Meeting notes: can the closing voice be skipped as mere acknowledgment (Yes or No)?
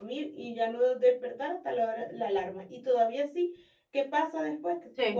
Yes